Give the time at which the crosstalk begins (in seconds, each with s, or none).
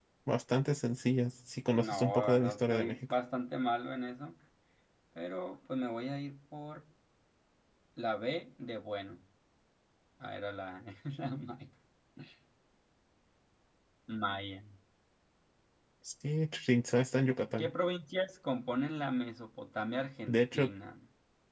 1.7 s